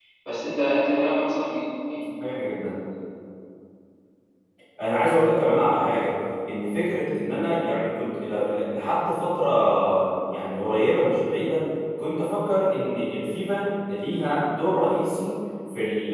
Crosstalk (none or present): none